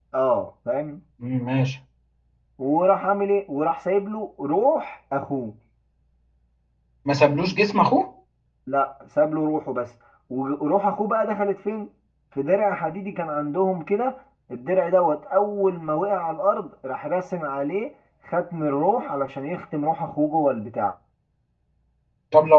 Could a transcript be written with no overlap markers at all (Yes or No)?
Yes